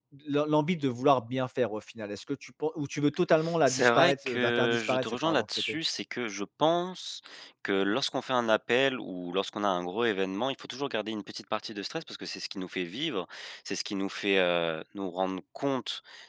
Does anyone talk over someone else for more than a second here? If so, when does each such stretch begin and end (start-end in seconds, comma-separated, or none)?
3.7-5.8